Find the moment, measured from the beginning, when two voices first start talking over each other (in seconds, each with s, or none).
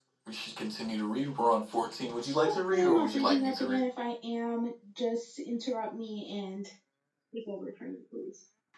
2.4 s